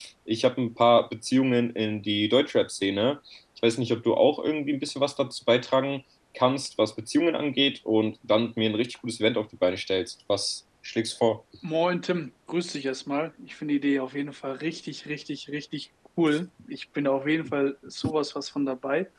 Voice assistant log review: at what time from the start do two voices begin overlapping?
none

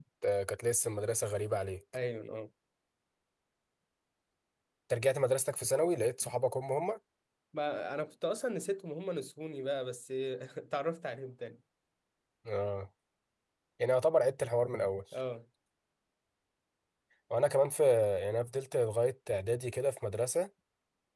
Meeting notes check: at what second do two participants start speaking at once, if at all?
none

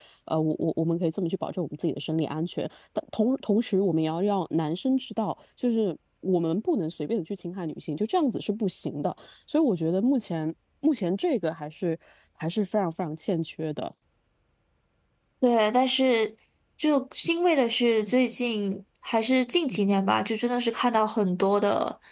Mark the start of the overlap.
none

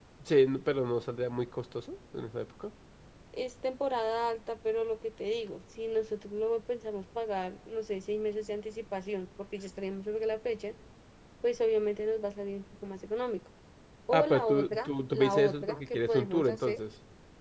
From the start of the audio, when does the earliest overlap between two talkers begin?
14 s

